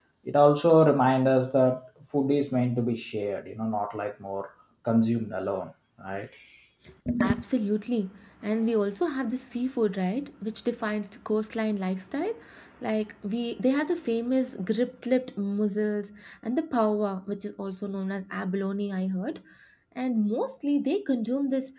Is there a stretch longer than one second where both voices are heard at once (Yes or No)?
No